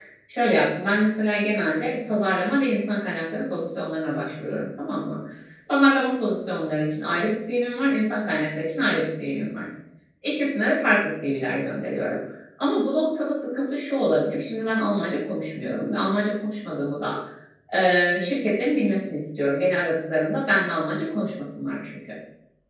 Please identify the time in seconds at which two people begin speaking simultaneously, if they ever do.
none

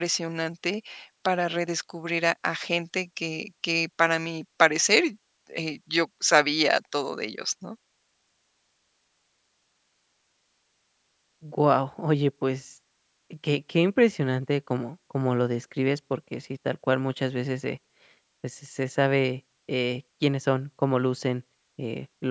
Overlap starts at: none

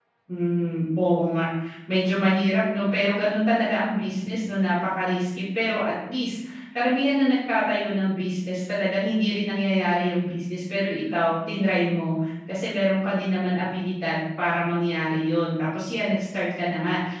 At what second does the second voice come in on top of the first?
none

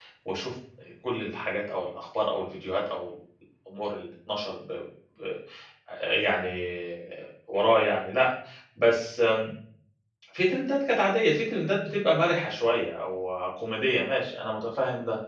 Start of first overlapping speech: none

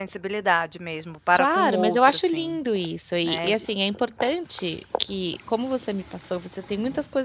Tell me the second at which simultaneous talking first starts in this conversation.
1.4 s

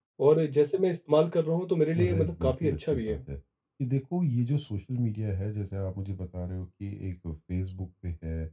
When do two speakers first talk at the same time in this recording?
1.9 s

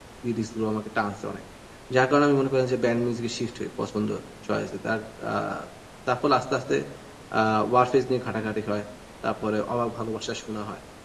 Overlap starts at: none

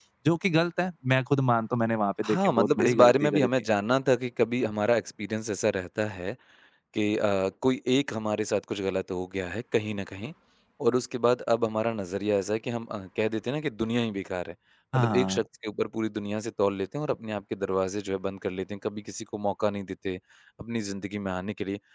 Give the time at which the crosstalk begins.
2.2 s

